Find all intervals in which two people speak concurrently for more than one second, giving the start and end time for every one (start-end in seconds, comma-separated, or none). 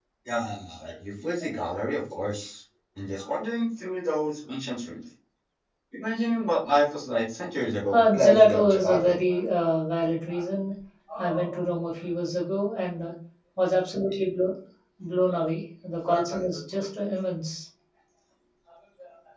7.9-9.2